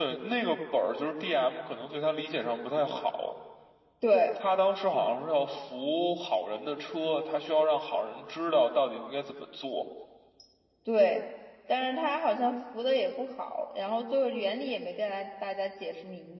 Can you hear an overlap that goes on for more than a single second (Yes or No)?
No